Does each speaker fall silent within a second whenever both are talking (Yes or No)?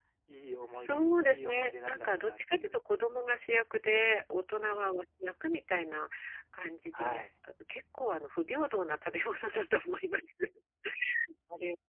No